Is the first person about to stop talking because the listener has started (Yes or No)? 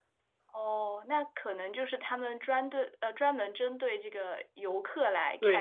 Yes